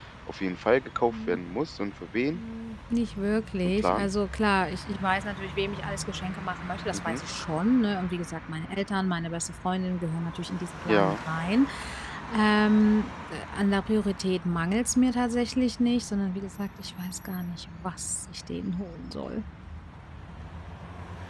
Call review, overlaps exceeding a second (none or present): none